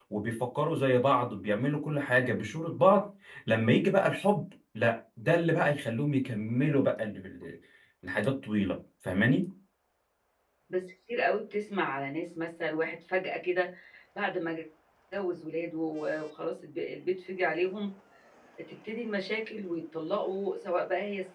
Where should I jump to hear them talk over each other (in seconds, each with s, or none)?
none